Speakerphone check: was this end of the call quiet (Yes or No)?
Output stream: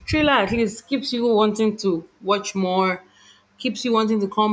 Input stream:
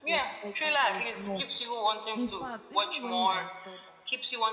No